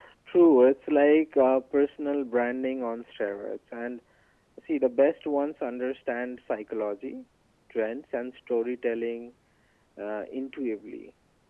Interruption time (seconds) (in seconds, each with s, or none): none